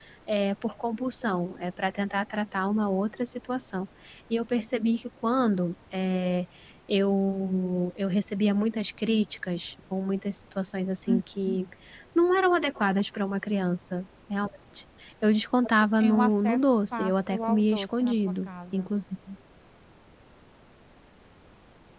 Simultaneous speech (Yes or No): Yes